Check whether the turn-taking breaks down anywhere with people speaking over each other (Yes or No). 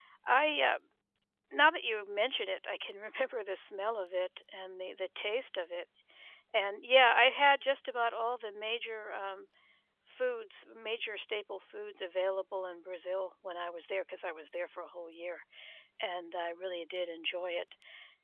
No